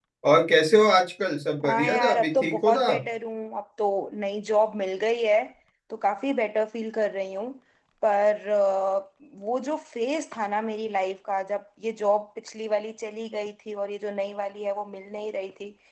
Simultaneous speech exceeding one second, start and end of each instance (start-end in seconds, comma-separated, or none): 1.7-3.0